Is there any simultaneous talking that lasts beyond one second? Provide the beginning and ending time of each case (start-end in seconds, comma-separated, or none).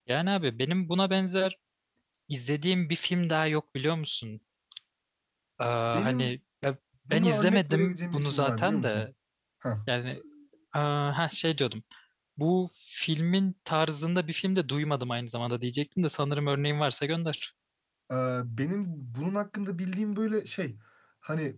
7.1-9.1